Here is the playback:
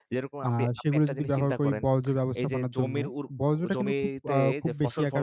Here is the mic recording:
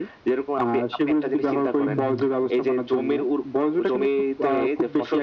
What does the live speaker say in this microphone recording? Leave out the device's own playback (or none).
হুম, হুম।